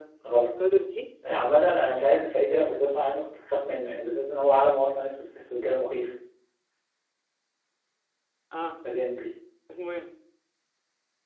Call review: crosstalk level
none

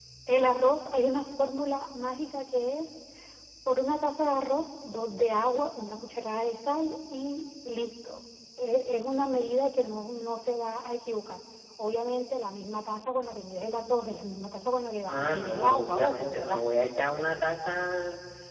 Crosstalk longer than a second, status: present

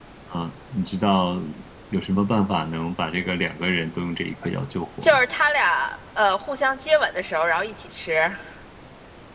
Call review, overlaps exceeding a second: none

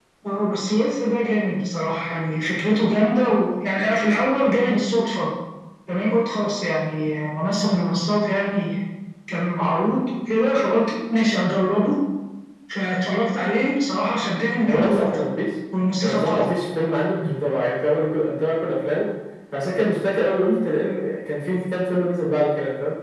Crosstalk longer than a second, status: none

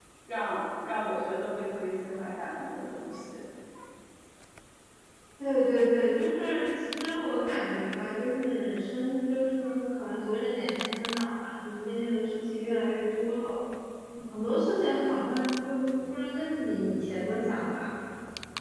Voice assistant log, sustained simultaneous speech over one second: none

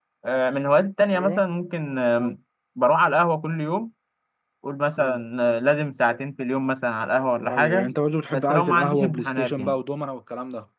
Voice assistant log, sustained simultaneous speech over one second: present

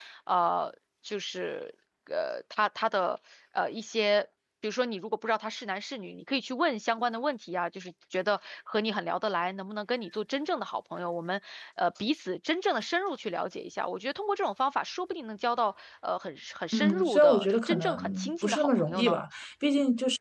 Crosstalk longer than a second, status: present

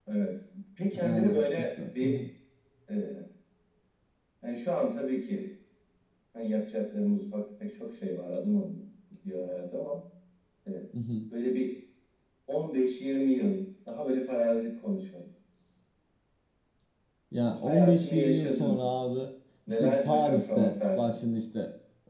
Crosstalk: present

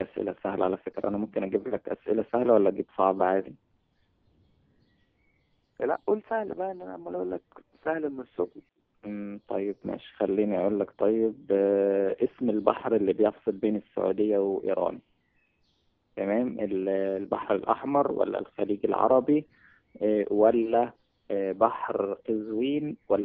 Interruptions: none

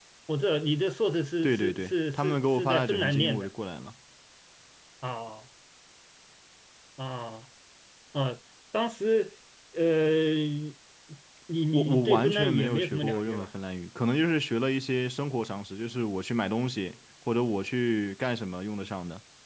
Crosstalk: present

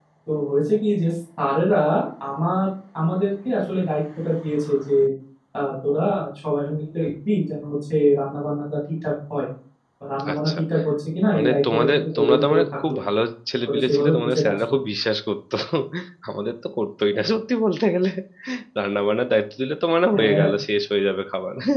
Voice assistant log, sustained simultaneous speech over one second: present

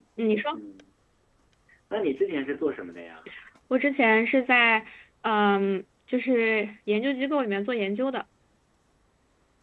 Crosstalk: none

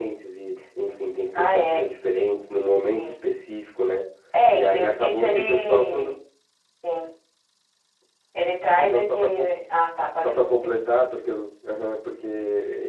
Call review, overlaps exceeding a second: present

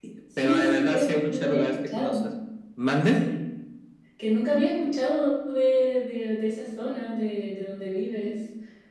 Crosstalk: present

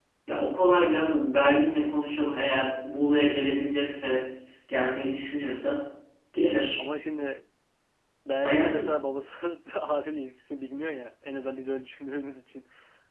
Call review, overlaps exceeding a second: none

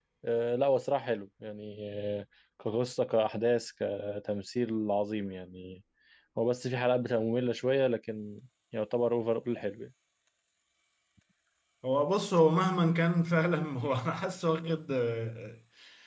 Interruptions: none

